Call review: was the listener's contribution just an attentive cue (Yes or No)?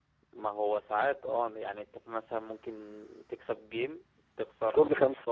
Yes